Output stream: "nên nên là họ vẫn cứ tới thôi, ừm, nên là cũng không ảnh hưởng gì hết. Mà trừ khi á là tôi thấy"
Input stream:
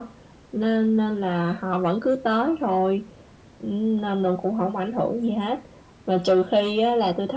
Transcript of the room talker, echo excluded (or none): none